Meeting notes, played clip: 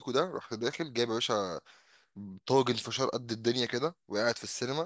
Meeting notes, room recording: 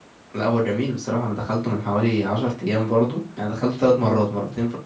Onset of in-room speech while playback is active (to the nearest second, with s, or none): 0 s